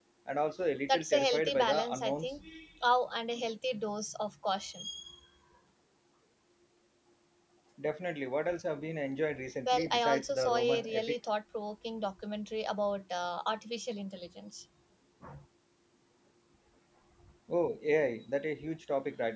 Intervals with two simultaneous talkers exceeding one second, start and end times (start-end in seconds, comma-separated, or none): 0.9-2.3, 9.7-11.2